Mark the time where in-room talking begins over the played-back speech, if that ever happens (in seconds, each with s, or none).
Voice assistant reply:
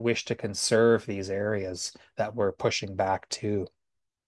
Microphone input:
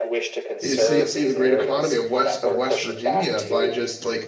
0.6 s